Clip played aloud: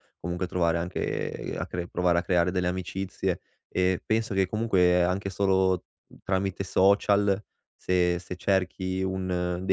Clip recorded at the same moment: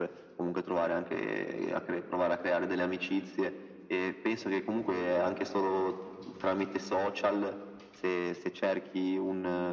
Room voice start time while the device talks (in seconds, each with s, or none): none